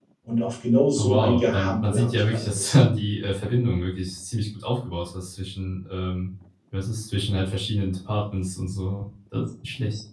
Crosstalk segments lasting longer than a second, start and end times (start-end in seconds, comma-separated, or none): 1.0-2.8